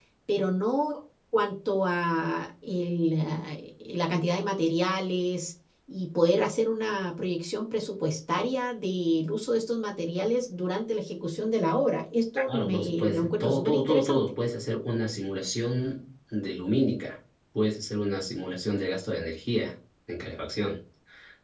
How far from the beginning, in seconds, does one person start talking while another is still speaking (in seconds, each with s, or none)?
12.5 s